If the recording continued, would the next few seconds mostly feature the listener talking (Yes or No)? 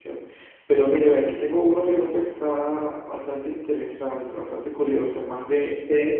No